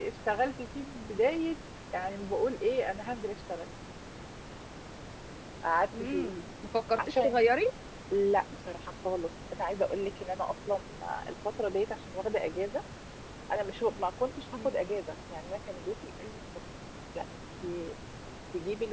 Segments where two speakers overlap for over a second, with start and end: none

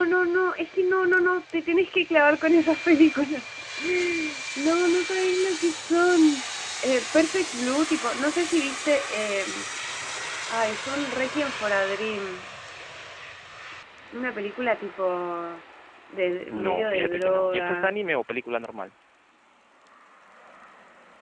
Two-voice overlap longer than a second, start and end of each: 16.5-17.9

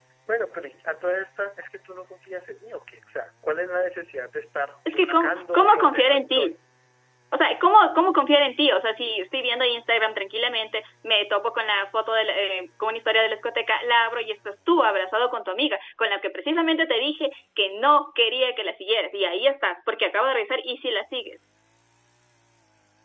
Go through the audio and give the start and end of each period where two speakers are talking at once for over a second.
4.9-6.5

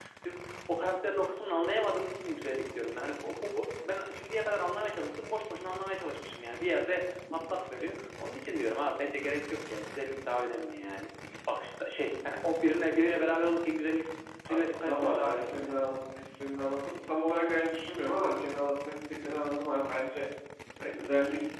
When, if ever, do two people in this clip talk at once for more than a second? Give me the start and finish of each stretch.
14.5-15.8

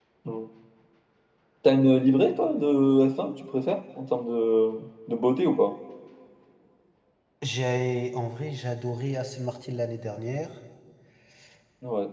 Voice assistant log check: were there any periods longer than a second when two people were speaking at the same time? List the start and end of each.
none

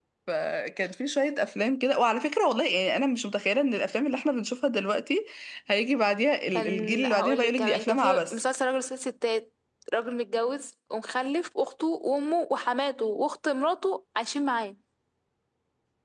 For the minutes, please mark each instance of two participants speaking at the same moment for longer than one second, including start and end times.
6.5-8.4

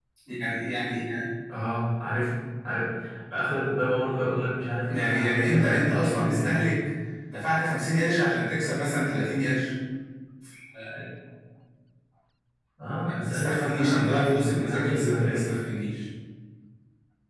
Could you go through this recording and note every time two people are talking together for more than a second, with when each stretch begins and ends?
4.9-6.7, 13.0-15.5

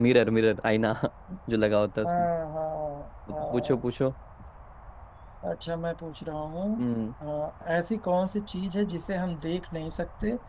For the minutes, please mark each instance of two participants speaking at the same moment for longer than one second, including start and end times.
none

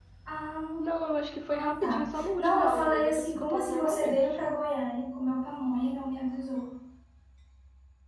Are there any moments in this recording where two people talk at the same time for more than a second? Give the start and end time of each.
1.4-4.2

